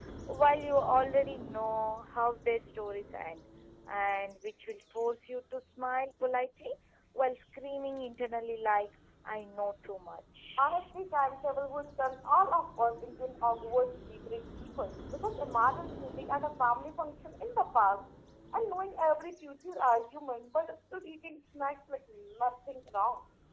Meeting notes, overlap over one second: none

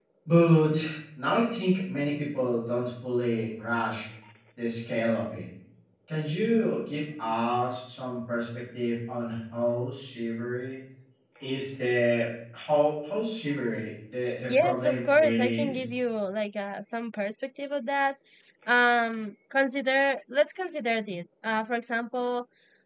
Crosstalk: present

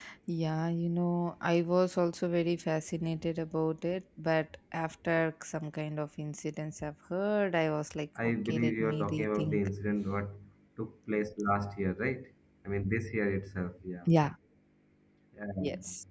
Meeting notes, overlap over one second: present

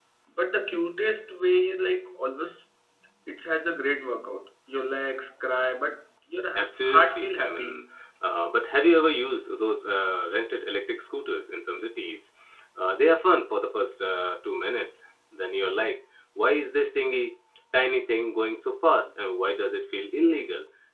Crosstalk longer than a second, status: present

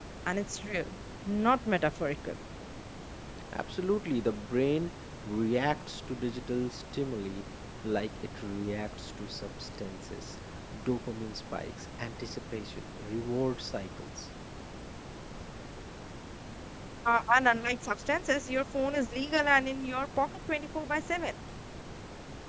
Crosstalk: none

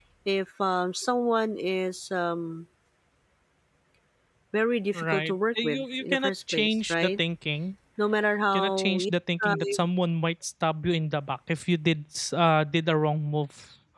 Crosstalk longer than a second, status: present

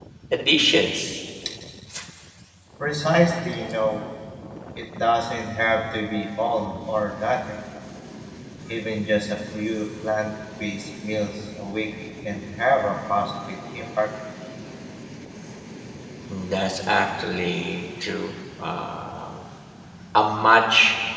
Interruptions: none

